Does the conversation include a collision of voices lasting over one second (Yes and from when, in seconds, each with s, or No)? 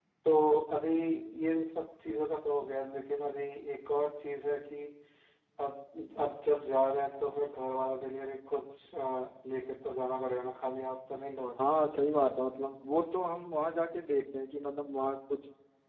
No